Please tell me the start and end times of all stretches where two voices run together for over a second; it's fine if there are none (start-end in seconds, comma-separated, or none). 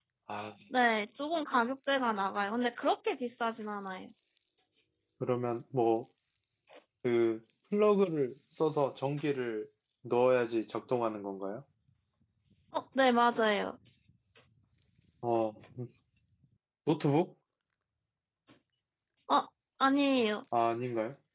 none